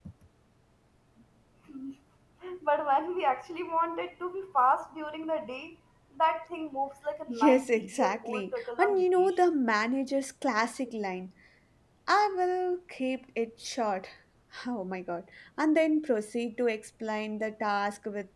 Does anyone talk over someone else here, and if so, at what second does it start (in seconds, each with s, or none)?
7.3 s